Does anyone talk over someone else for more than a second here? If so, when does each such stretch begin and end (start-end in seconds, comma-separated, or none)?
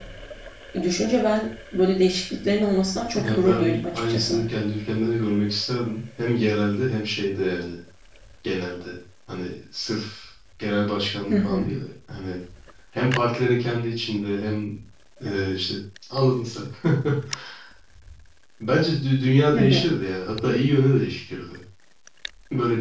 3.2-4.4